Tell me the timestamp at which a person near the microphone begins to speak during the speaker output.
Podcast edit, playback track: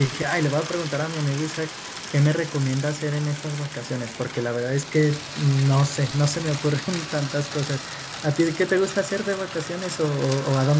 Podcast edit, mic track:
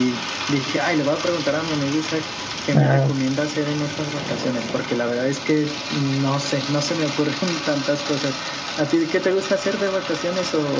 2.7 s

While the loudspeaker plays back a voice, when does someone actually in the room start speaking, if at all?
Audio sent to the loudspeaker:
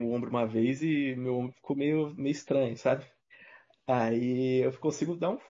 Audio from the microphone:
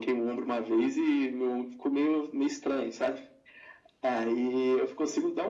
none

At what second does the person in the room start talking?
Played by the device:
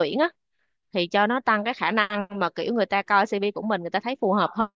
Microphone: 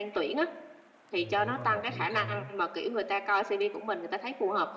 1.1 s

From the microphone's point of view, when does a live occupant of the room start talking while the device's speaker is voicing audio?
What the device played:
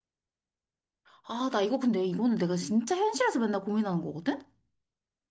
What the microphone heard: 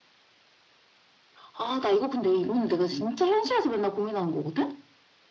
none

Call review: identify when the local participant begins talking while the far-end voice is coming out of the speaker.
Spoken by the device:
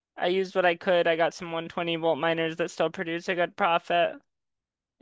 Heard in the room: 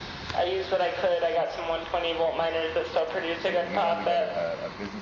3.5 s

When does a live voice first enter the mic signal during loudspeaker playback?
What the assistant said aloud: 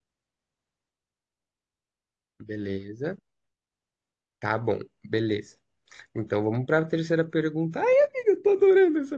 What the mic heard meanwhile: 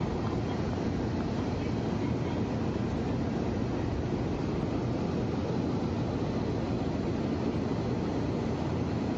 none

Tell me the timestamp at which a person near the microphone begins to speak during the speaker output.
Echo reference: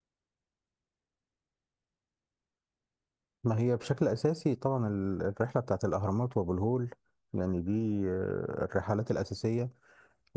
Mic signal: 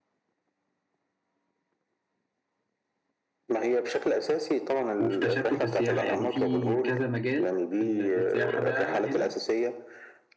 5.0 s

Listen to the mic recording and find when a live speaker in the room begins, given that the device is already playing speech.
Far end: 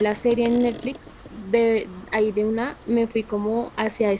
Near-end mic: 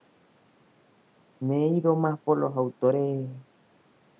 1.4 s

